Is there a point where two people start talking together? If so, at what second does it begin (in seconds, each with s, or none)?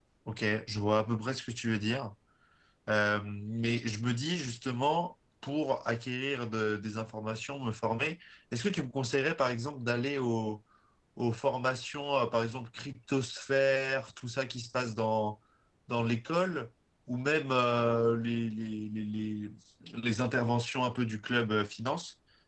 none